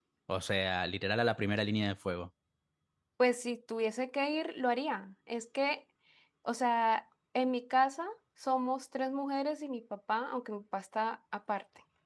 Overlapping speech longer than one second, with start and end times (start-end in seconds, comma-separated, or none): none